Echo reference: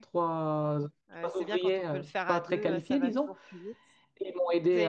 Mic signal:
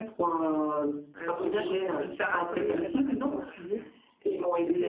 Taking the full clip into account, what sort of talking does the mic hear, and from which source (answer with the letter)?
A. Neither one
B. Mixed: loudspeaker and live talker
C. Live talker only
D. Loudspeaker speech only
B